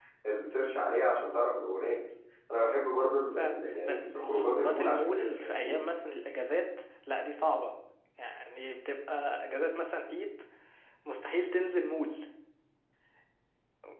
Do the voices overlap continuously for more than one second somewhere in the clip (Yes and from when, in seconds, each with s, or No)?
Yes, from 3.4 s